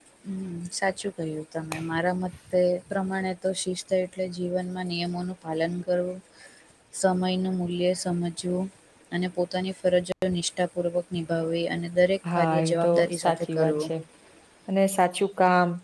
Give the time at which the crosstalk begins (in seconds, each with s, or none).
12.2 s